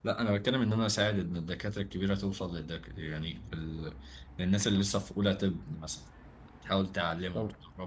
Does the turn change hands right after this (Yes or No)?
No